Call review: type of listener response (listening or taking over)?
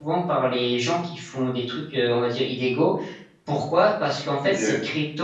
listening